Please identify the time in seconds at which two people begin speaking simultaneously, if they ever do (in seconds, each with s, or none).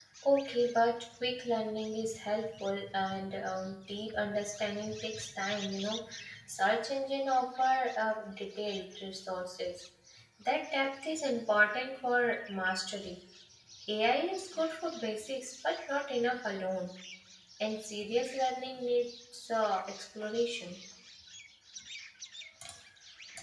none